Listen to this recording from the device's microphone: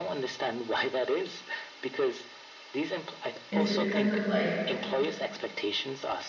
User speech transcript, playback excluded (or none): Is it because of like,